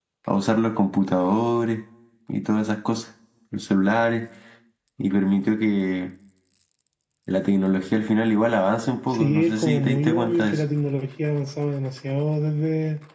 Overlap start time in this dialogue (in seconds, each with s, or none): 9.1 s